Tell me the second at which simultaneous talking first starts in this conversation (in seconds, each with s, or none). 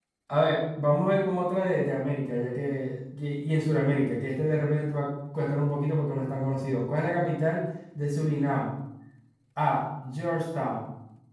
none